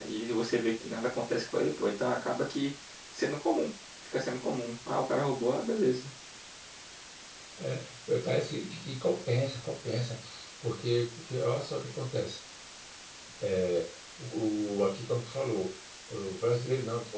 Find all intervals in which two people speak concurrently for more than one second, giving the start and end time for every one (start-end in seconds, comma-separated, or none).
none